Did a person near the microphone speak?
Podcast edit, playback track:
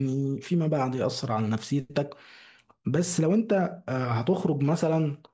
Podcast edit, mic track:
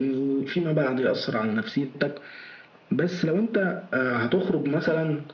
No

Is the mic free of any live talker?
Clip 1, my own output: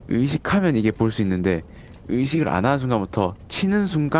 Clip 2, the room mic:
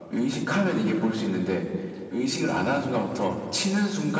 Yes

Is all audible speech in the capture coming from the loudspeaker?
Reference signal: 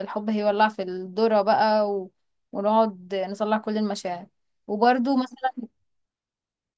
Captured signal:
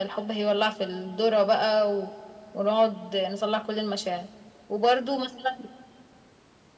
Yes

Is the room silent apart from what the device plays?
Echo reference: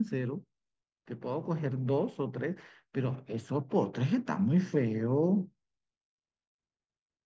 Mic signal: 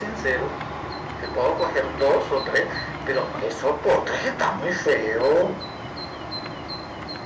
Yes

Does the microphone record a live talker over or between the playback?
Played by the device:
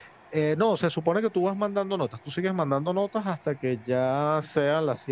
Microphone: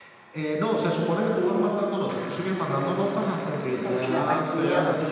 Yes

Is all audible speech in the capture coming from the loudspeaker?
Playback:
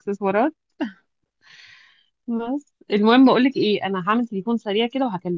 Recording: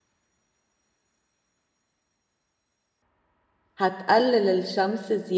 No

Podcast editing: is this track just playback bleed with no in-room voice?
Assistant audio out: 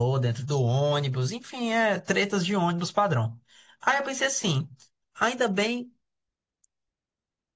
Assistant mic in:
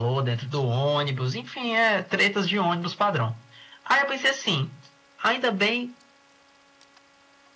Yes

